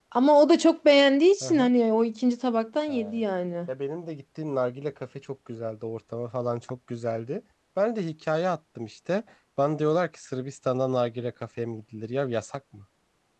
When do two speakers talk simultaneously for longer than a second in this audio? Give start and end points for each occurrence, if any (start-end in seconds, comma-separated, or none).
none